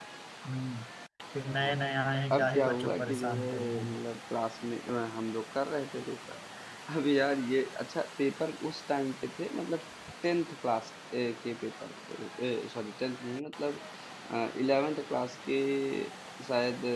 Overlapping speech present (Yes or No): Yes